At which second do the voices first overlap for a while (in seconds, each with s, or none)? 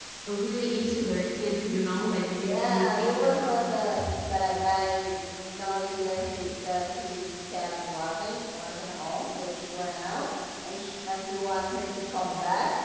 2.4 s